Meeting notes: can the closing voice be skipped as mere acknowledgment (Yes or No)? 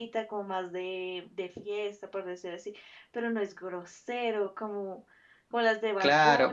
No